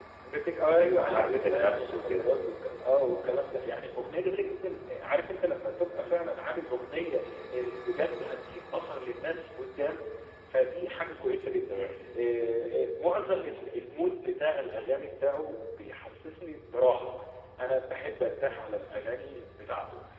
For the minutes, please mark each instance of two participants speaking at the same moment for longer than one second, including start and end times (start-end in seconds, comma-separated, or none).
0.9-2.3